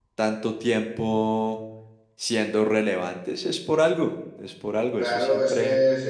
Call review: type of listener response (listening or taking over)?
taking over